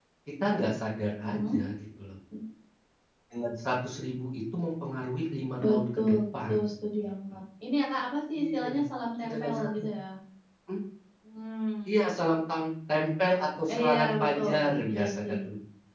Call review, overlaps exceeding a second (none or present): present